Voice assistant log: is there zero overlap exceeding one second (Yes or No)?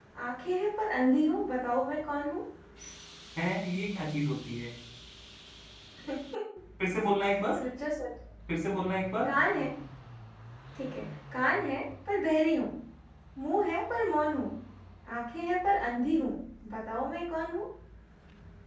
Yes